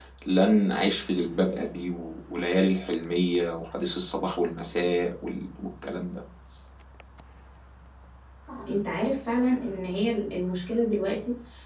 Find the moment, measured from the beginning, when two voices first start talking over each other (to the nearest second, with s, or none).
none